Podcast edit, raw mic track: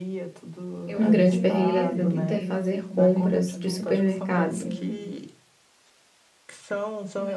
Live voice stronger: Yes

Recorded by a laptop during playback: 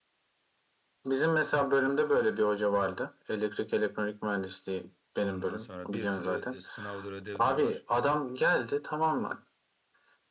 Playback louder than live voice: Yes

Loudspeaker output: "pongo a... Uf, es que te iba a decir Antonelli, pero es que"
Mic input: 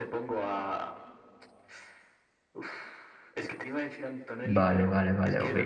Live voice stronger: Yes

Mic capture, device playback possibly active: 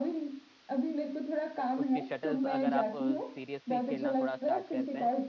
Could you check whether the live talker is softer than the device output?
Yes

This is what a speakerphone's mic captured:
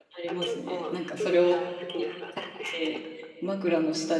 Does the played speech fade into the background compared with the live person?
Yes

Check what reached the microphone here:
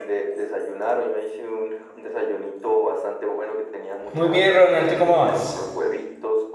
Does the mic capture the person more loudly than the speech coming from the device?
Yes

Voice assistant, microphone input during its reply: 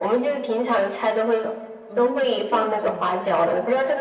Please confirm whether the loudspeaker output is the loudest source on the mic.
Yes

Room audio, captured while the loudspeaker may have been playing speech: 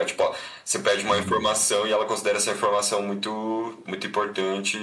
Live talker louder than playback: No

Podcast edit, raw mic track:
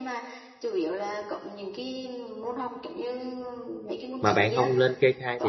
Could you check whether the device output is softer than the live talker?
Yes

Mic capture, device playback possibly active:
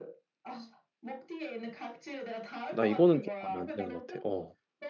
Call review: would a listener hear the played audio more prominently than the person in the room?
No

